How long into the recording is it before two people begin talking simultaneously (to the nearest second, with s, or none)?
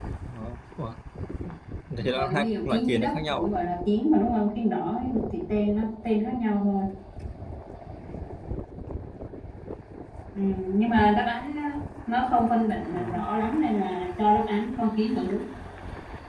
2 s